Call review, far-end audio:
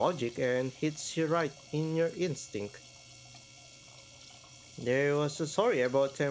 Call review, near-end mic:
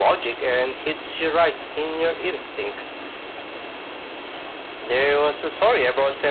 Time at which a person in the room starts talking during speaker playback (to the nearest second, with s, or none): none